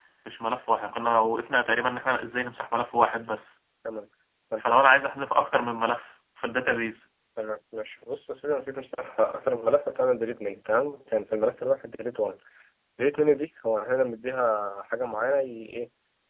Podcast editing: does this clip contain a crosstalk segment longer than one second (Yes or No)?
No